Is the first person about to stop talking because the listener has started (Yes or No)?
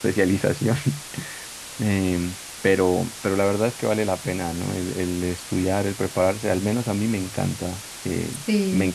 No